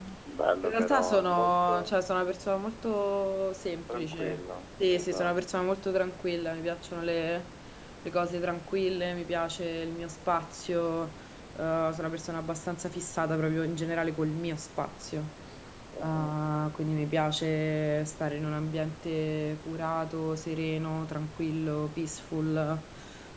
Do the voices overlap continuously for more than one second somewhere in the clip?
Yes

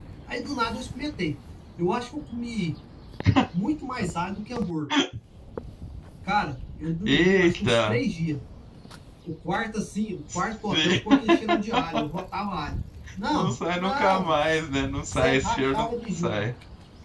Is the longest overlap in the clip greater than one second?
Yes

